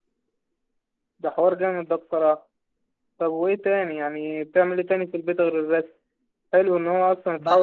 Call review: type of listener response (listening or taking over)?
listening